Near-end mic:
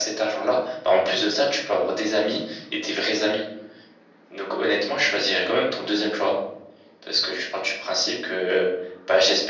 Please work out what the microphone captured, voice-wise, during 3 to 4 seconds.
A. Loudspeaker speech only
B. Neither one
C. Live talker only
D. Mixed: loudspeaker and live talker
A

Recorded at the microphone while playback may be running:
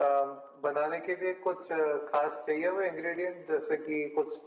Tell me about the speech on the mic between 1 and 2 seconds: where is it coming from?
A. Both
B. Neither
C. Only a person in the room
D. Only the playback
D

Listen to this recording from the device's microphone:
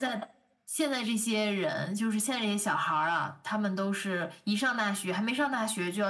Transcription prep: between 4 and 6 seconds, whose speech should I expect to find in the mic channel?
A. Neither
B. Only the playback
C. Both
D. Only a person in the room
B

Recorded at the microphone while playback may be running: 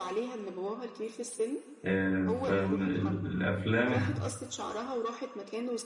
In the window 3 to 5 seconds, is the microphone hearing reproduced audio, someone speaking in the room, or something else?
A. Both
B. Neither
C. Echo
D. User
A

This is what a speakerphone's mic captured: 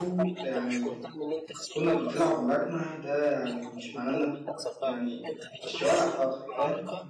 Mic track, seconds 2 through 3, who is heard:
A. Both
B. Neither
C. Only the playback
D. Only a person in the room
A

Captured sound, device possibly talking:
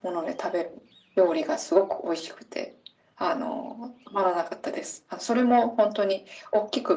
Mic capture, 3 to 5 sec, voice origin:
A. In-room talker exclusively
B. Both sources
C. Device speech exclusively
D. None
C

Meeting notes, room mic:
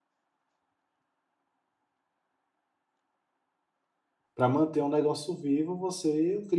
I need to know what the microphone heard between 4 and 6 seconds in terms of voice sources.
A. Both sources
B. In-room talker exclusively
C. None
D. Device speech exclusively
B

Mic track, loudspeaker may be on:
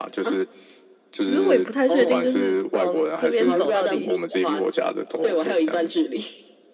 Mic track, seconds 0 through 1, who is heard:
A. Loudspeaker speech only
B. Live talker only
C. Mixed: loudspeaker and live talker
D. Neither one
A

